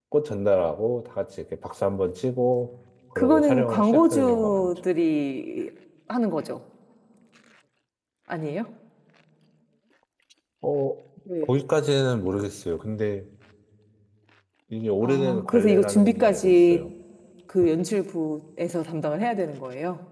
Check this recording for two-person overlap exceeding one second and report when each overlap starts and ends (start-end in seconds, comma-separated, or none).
3.2-4.7, 15.0-16.9